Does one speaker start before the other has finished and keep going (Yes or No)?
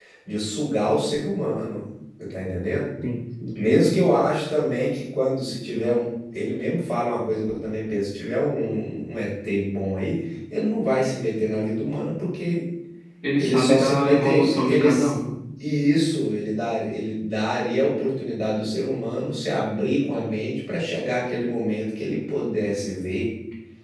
Yes